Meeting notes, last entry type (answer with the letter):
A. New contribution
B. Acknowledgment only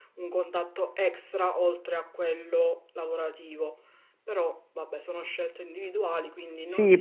A